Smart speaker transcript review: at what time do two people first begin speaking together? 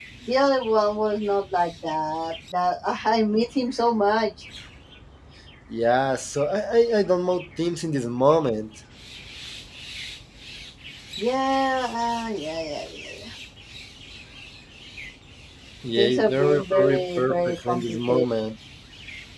16 s

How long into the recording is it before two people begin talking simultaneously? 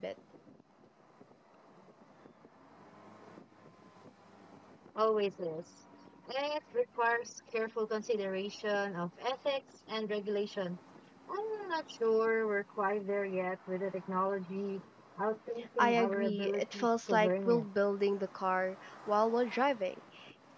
16 s

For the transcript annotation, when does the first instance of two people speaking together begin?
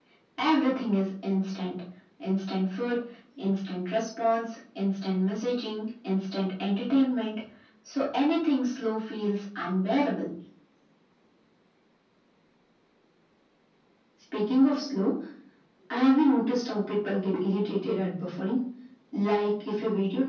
none

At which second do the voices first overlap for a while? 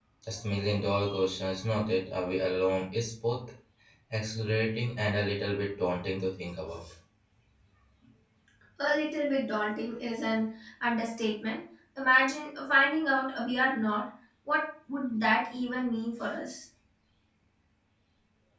none

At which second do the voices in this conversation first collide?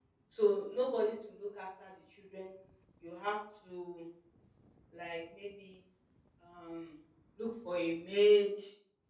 none

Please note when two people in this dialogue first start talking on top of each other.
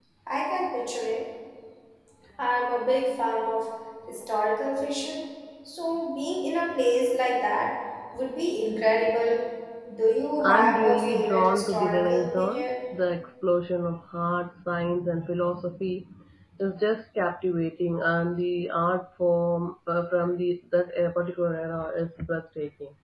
10 s

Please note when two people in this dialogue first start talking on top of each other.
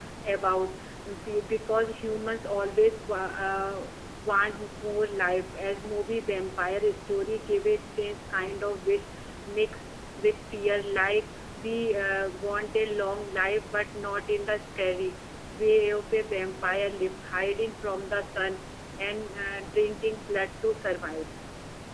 none

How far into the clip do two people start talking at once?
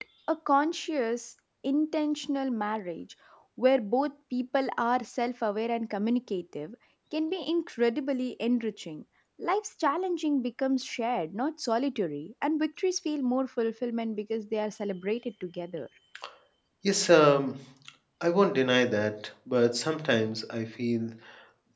none

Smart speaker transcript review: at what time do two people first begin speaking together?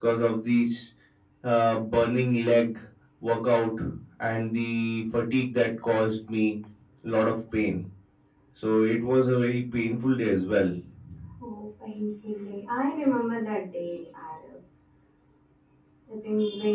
none

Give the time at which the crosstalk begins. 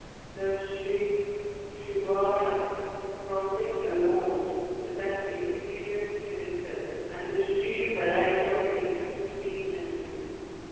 none

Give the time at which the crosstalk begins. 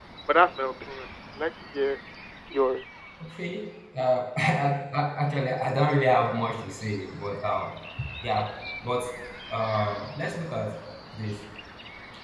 none

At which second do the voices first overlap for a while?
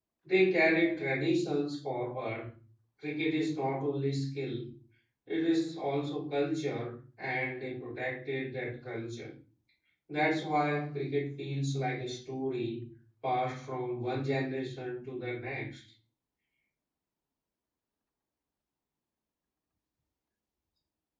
none

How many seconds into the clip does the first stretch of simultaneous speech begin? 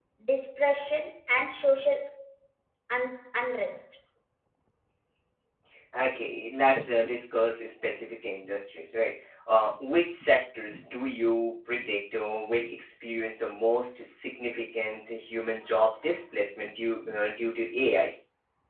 none

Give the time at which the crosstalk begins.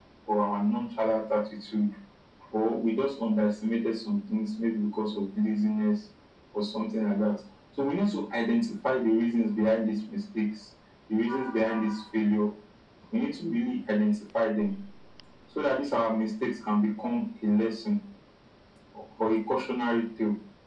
none

